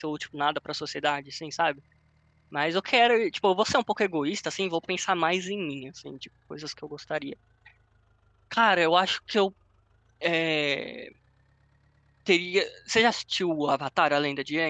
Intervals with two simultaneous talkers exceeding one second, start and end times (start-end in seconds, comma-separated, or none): none